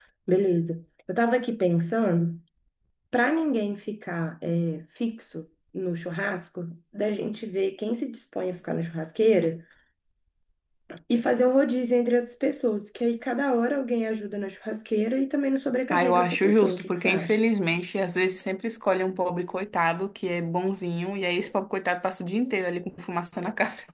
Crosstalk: present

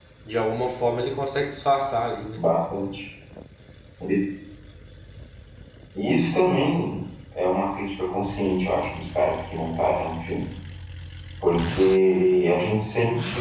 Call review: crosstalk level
none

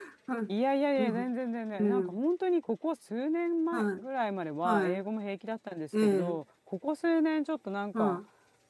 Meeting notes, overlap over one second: none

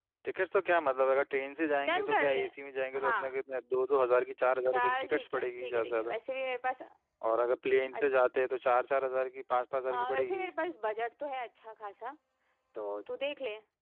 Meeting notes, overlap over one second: present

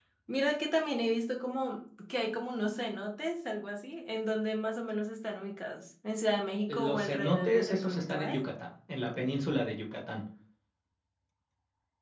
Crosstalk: present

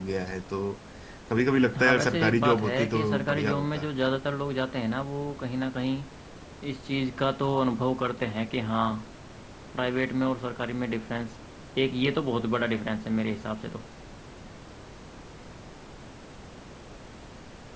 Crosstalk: present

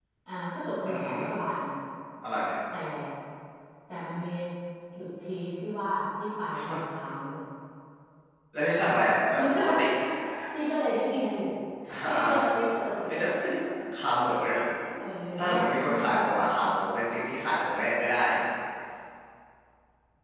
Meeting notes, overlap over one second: present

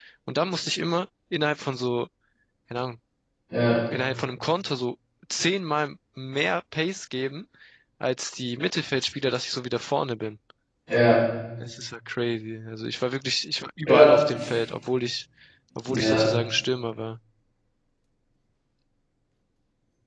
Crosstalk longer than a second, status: none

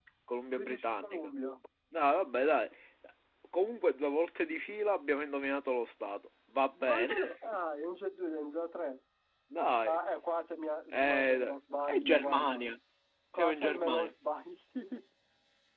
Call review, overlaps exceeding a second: present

